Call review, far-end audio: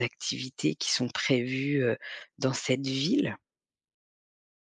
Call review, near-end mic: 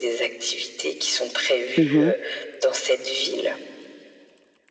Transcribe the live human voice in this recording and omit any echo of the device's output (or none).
Mmh